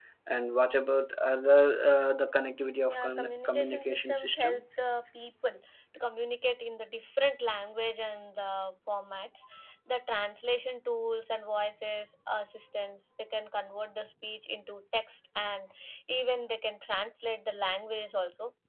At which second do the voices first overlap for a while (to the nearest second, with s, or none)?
3 s